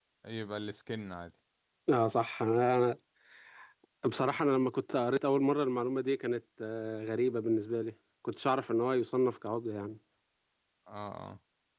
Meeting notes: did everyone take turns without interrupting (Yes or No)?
Yes